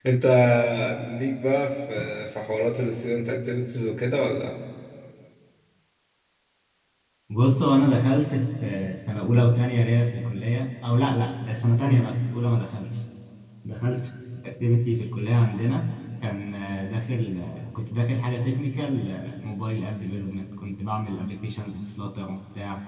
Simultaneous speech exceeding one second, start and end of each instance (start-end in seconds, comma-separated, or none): none